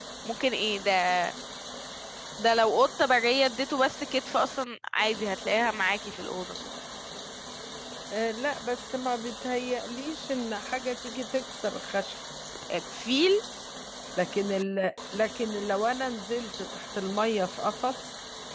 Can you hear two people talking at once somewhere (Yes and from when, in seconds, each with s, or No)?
No